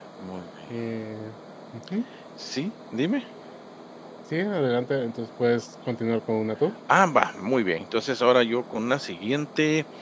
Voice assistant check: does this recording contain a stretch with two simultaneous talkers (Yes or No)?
No